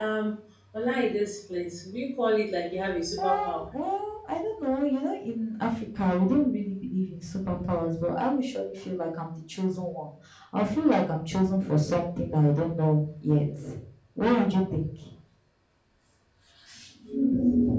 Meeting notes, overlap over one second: none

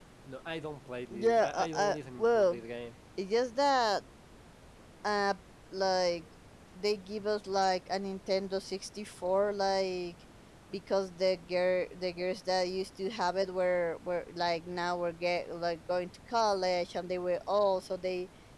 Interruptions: present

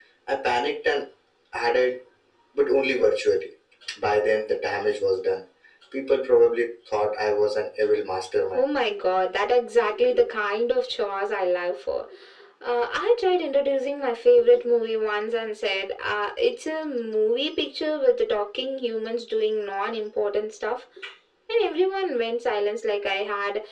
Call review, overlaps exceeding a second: none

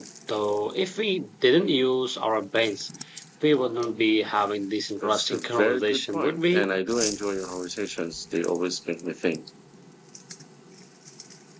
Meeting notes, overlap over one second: present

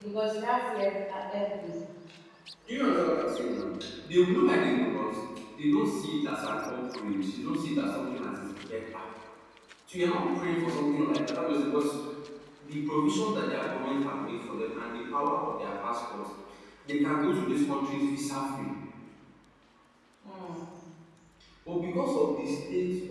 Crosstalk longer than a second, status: none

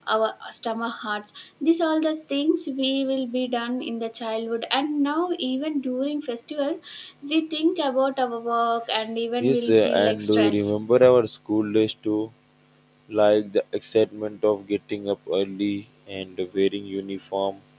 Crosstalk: present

